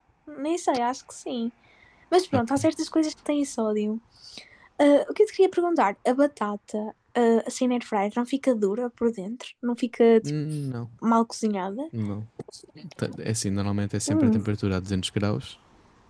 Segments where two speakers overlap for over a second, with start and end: none

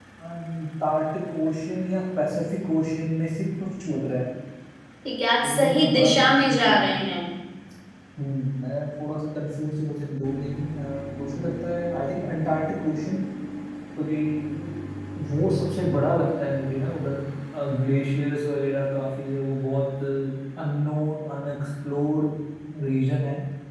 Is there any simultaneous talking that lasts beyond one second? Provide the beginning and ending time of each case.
5.4-6.8

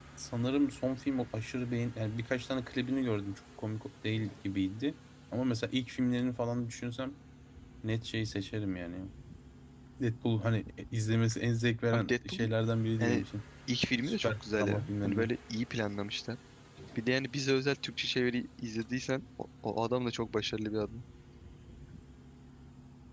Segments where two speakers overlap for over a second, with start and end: 14.0-15.3

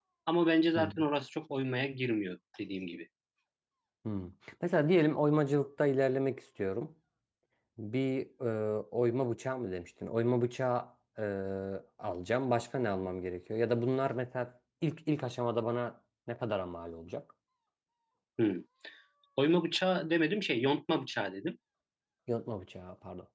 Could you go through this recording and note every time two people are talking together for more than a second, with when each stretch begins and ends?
none

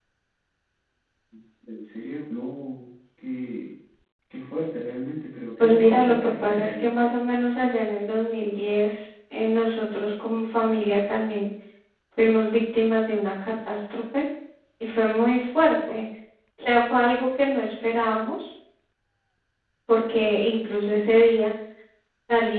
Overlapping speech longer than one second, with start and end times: 5.6-6.9

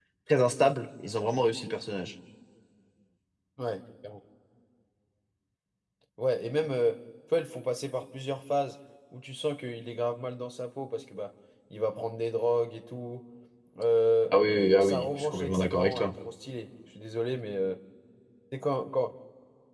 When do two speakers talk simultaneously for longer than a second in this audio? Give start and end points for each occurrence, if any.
14.8-16.2

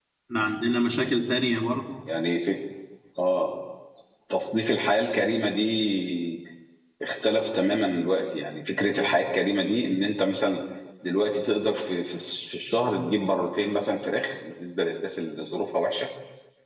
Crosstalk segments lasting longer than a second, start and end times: none

